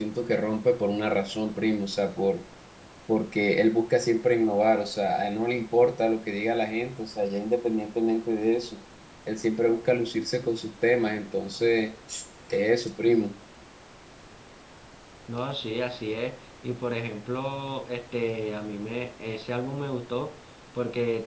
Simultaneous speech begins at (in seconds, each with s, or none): none